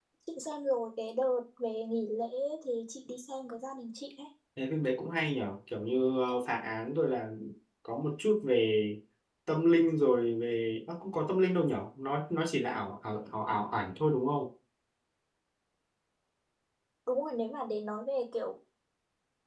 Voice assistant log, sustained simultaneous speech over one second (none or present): none